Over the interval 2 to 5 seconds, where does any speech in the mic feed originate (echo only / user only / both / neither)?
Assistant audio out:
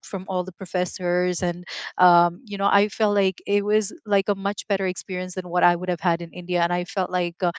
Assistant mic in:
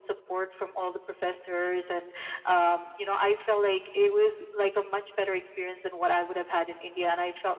echo only